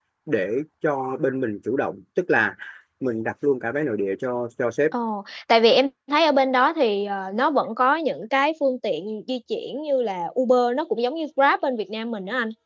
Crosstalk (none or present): none